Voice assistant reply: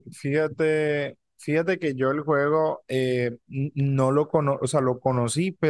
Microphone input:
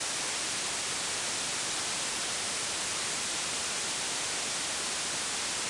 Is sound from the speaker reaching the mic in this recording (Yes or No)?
No